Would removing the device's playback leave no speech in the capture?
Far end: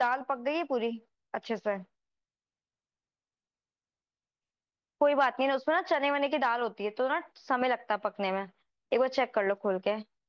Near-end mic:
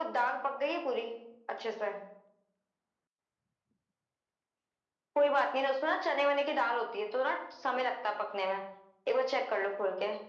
Yes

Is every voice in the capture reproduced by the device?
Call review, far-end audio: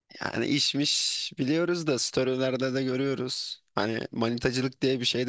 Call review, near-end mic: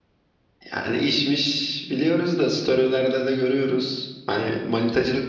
Yes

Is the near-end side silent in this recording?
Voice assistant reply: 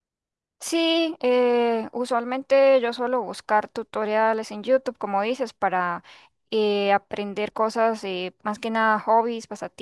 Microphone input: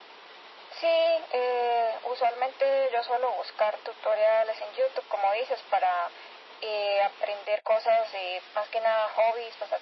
Yes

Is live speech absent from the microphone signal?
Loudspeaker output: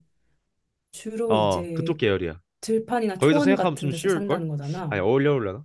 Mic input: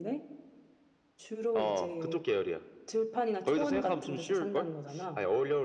Yes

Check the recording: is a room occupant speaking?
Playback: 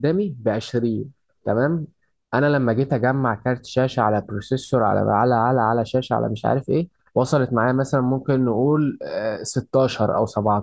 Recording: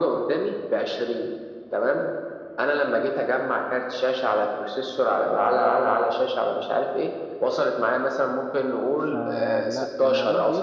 Yes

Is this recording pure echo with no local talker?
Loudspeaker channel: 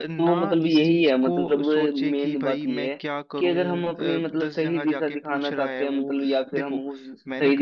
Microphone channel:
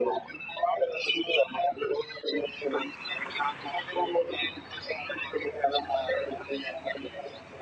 Yes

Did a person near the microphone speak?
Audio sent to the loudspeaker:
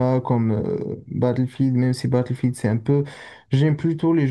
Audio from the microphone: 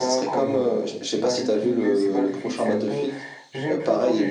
Yes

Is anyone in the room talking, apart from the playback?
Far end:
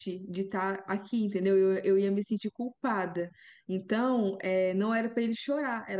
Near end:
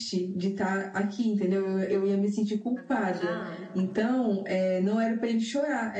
Yes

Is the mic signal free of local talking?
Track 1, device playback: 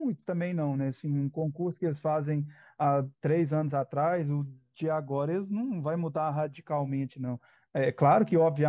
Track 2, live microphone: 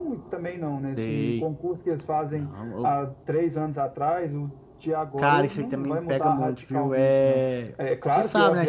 No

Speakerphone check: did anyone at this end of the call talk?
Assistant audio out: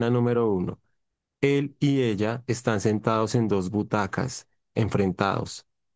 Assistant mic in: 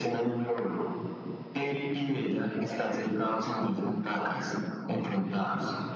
No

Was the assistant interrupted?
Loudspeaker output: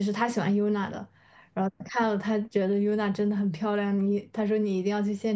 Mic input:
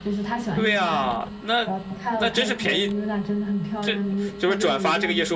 Yes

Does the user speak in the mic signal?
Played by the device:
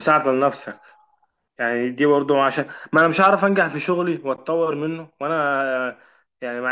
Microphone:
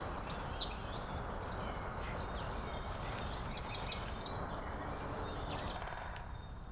No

